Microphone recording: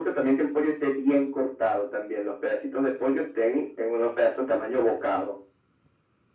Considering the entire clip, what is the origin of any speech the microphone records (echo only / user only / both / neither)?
echo only